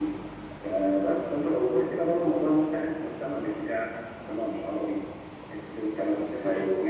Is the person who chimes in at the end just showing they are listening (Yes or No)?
Yes